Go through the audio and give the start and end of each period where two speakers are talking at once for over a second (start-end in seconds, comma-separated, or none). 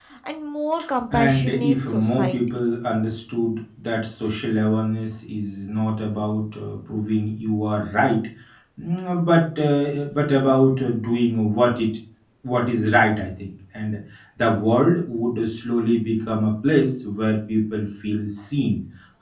1.1-2.4